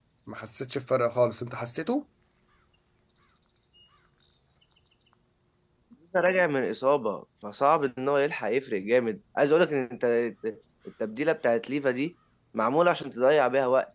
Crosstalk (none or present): none